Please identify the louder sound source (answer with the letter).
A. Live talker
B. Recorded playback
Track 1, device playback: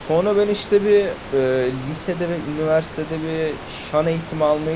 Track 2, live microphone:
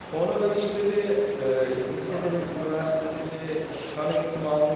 B